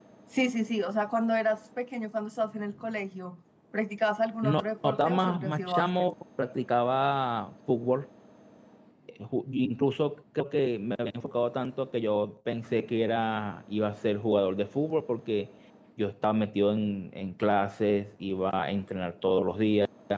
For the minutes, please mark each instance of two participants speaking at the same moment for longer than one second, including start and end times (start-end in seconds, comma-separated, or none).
4.4-6.1